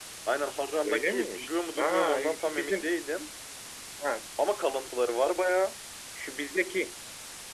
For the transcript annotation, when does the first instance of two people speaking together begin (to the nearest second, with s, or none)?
1 s